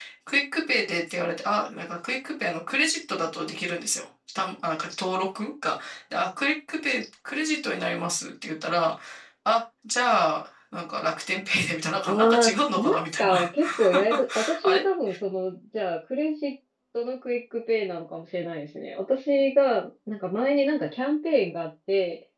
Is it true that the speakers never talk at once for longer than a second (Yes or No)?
No